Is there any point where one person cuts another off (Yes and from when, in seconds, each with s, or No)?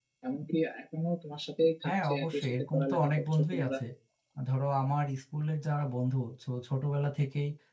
Yes, from 1.8 s